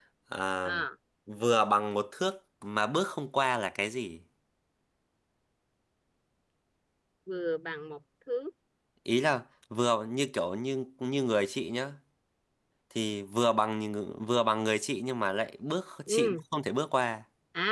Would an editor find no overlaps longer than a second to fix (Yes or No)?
Yes